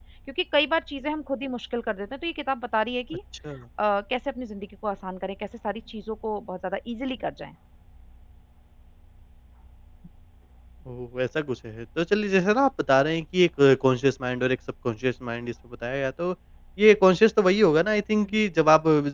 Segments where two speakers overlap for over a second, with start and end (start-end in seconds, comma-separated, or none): none